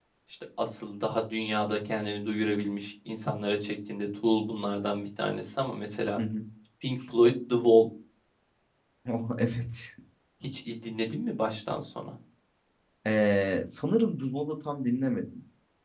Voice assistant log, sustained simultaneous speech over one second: none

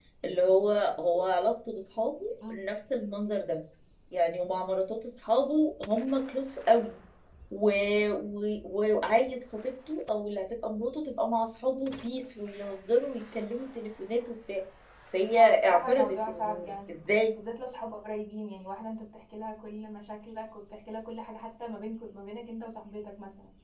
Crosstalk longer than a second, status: present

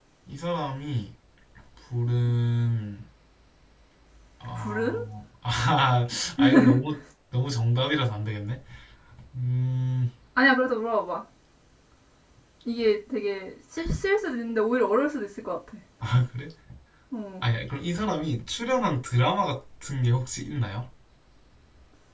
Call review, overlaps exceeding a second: none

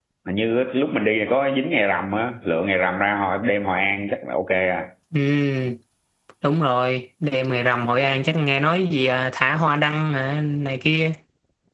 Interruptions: none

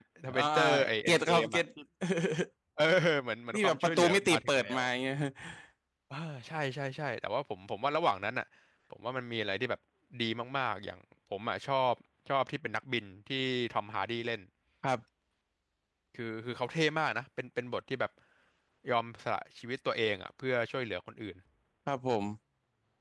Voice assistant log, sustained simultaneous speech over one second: present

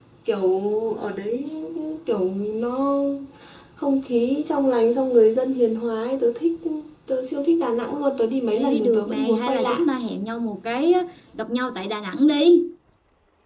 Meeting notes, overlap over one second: present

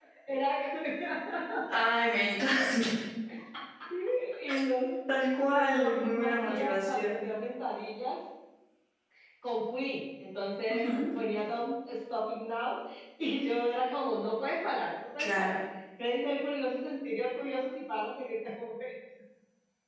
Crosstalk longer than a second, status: present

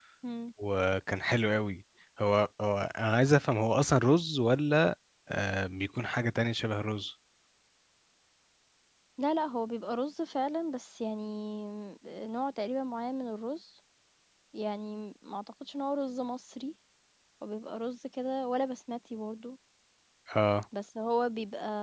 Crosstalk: none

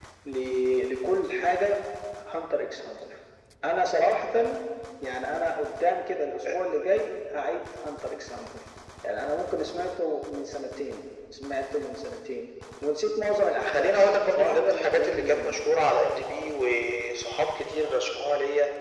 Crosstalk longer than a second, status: present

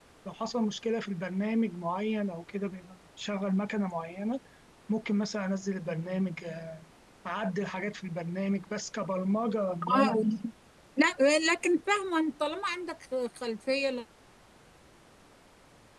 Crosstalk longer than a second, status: none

